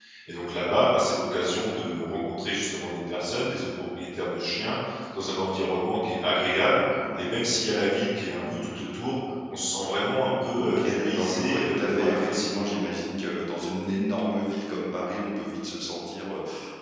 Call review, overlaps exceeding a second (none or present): present